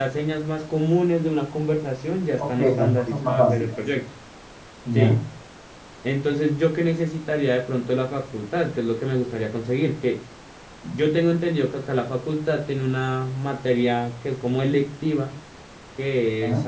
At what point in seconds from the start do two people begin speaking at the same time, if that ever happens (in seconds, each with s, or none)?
2.4 s